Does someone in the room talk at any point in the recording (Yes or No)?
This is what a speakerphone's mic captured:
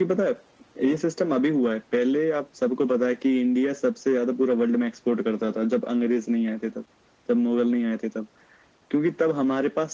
No